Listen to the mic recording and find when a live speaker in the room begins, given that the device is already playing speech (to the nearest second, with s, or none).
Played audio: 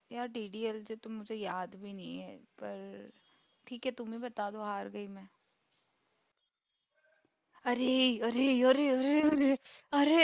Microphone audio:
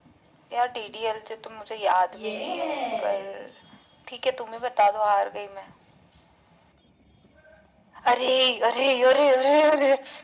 2 s